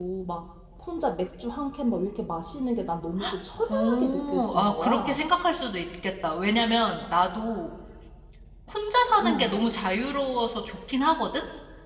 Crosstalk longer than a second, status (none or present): present